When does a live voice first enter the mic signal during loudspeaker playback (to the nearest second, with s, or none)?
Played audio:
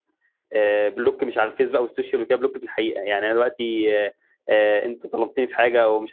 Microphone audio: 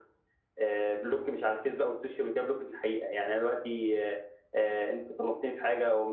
none